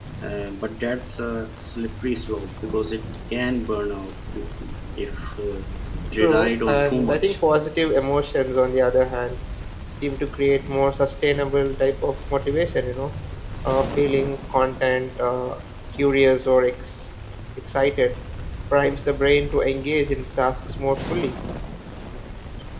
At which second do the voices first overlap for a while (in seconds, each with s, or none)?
6.1 s